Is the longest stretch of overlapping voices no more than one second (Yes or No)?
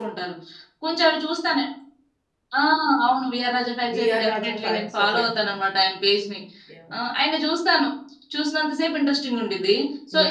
No